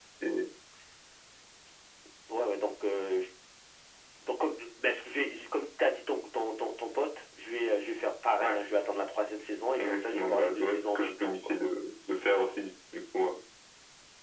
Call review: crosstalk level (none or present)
present